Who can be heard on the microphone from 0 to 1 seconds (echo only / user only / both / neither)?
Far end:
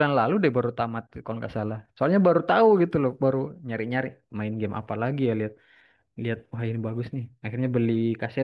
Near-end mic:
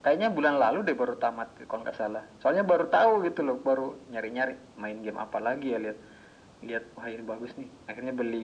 echo only